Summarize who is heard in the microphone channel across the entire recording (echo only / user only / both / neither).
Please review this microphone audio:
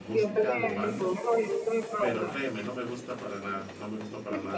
both